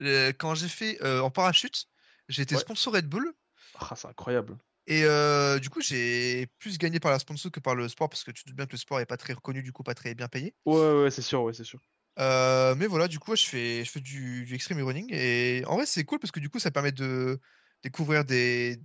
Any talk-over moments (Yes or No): No